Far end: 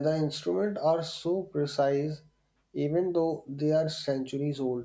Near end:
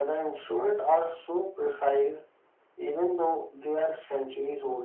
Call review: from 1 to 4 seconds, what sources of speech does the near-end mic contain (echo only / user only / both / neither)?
echo only